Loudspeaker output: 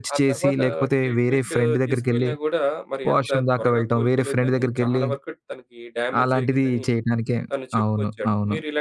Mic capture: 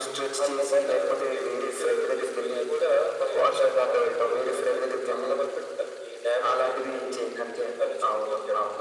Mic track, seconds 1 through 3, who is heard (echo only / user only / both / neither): echo only